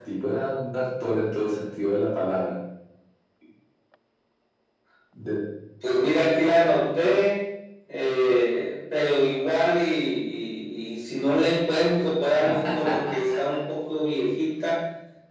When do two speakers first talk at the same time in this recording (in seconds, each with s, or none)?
none